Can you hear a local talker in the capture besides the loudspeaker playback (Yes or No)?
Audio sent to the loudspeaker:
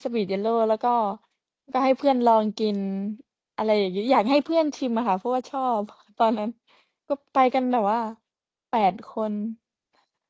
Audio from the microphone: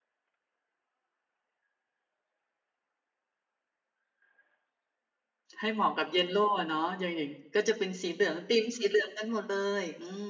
Yes